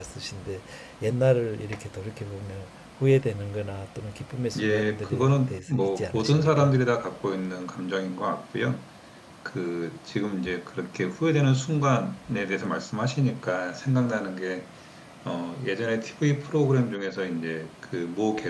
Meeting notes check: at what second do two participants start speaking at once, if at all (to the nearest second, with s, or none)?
5 s